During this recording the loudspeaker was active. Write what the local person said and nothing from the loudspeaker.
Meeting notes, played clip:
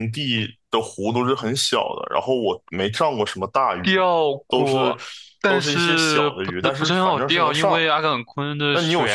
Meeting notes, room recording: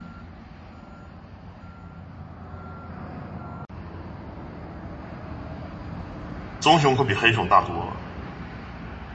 棕熊可比黑熊大多了。

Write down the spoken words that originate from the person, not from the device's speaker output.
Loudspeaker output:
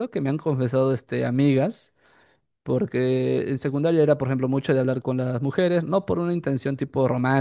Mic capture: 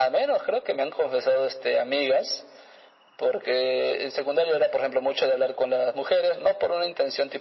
none

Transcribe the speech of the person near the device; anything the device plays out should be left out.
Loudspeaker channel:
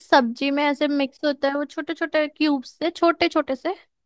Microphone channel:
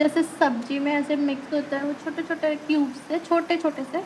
none

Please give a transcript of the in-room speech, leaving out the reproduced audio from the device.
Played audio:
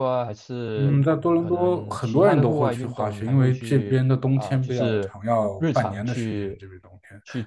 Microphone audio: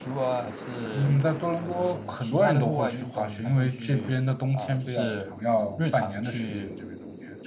none

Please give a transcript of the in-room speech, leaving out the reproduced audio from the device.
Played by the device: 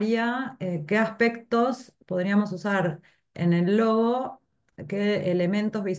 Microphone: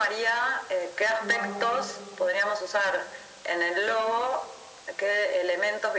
Wow.

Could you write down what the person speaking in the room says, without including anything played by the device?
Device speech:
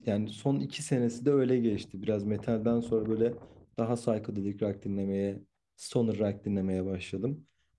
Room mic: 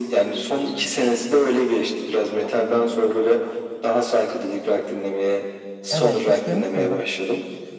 Evet, hiç duymuş muydun?

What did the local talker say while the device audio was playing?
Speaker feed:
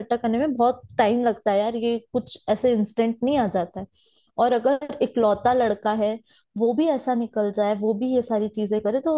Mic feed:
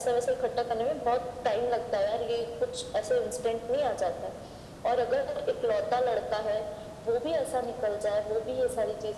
none

